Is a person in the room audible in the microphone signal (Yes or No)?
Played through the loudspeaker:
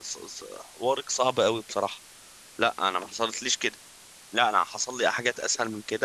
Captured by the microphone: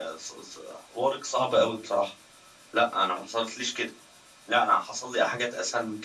No